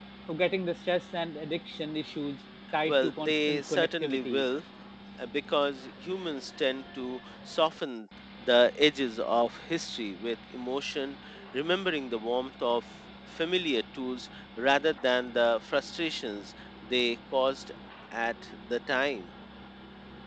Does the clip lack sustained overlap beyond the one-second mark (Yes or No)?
No